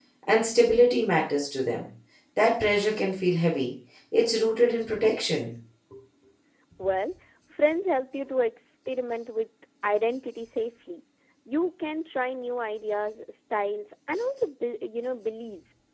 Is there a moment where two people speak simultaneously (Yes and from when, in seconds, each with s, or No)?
No